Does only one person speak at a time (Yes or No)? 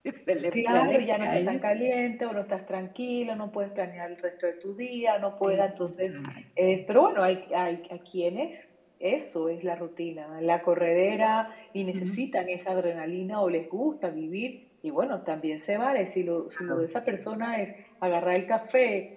No